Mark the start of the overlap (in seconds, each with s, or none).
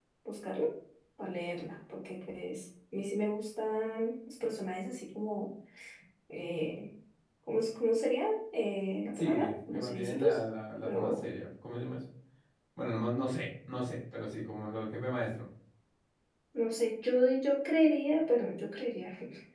9.1 s